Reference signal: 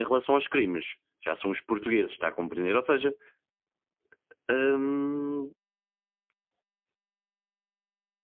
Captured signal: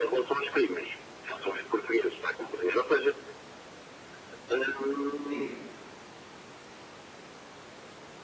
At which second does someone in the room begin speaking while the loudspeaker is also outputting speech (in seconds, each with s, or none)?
5.3 s